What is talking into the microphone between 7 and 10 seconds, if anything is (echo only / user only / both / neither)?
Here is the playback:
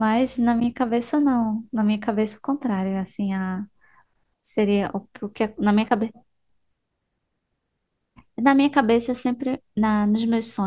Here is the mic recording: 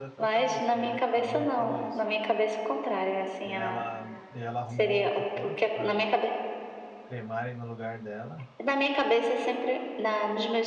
both